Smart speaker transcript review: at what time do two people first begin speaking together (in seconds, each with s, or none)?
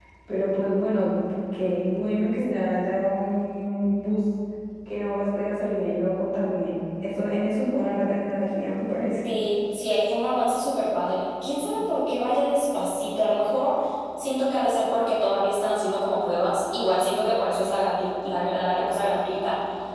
none